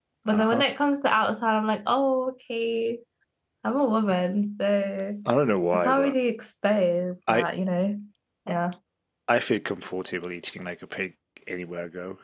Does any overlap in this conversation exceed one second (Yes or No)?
No